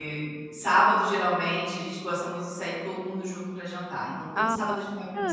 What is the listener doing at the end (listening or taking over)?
taking over